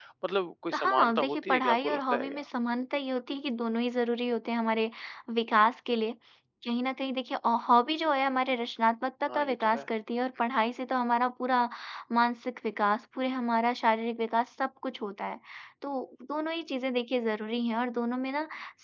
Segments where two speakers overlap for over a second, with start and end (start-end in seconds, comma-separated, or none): 0.7-2.4